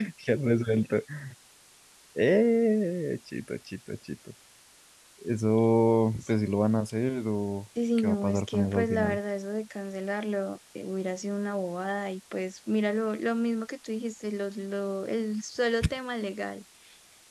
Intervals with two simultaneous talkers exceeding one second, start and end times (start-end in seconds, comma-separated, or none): 8.0-9.2